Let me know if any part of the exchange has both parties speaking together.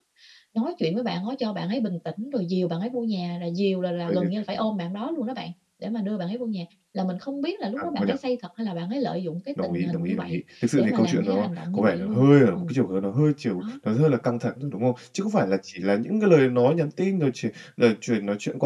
Yes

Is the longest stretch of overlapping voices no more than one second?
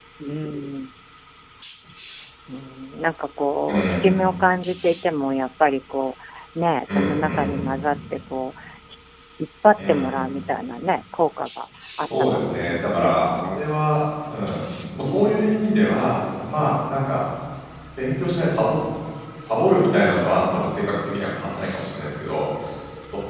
No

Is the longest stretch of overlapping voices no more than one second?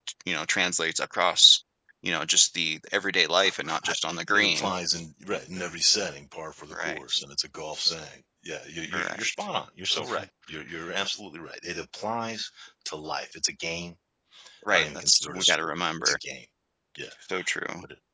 No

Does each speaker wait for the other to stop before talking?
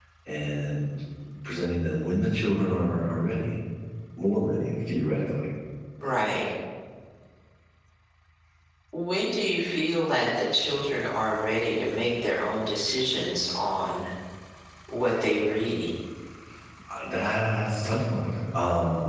Yes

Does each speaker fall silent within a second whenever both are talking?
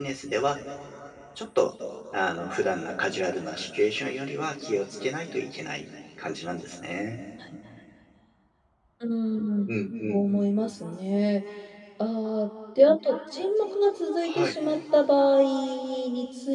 Yes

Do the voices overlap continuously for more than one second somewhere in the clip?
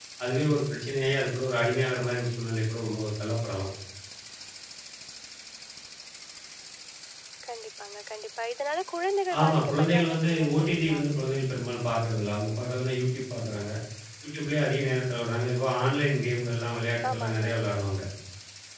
Yes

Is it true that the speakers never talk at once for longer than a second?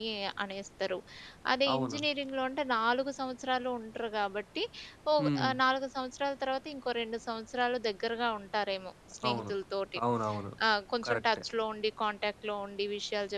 Yes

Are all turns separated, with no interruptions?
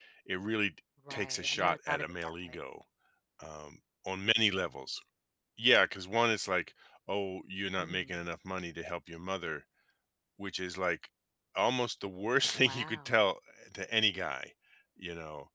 No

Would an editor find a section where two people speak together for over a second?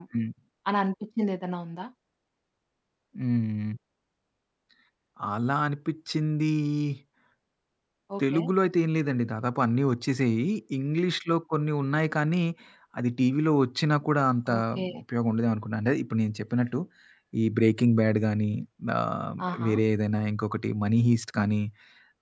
No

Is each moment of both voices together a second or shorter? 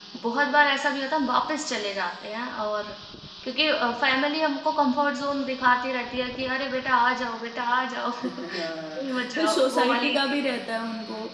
No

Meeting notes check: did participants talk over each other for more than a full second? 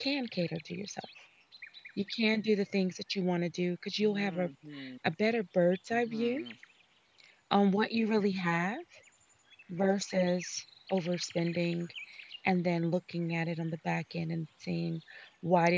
No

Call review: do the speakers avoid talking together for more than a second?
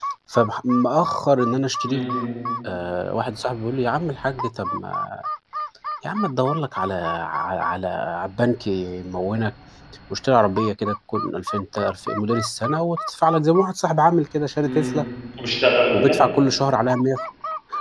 Yes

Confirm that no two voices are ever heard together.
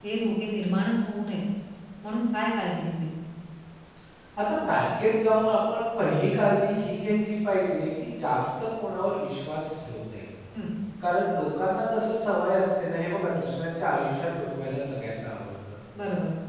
Yes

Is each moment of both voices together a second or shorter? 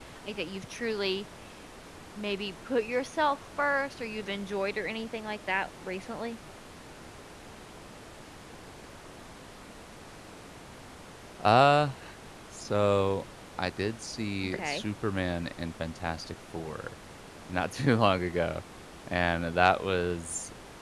Yes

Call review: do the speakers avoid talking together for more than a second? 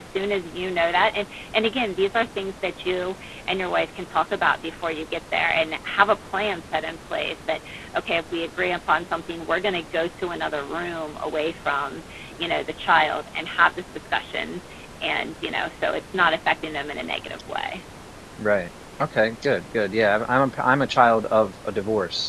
Yes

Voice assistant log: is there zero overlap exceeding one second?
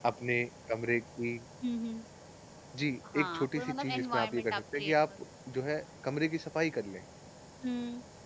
No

